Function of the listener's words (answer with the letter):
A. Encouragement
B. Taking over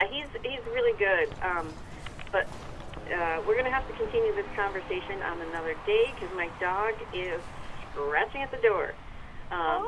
B